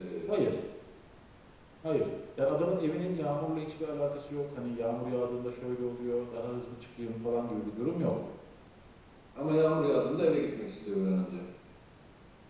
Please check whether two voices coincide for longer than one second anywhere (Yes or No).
No